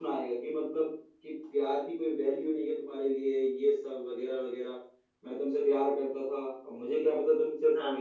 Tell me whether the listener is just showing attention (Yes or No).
Yes